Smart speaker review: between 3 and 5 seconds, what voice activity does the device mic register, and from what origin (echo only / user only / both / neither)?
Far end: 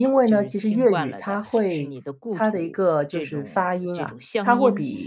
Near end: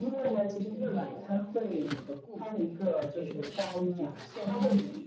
echo only